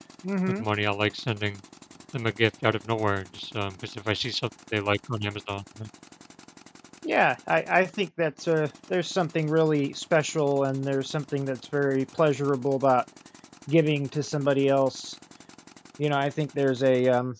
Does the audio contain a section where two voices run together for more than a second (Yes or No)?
No